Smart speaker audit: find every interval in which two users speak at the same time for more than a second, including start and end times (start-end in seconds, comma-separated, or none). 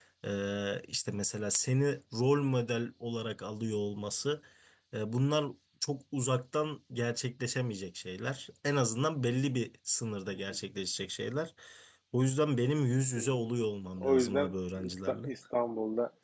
14.0-15.3